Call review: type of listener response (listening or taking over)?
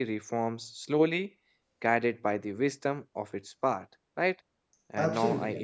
listening